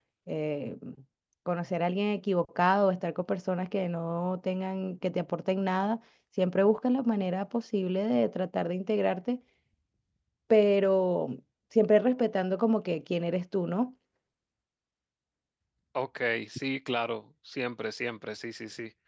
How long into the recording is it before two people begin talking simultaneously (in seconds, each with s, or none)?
none